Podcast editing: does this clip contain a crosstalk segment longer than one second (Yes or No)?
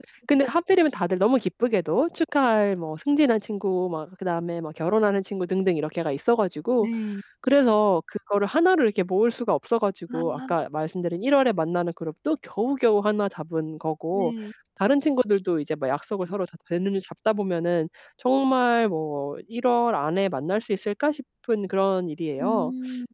No